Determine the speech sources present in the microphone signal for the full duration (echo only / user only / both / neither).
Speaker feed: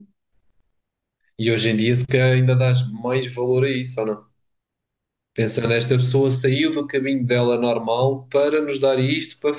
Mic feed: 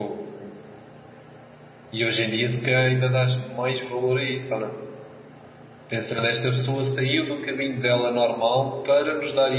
echo only